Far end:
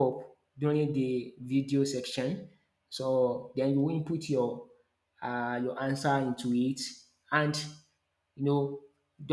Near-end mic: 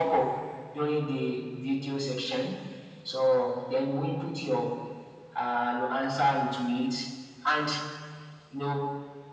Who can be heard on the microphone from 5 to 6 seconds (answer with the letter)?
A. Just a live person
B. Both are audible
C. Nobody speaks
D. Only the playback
D